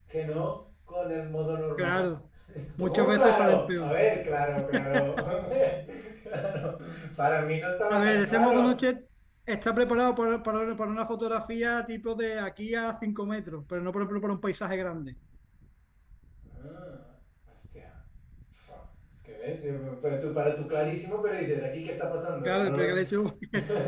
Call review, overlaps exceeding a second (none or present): present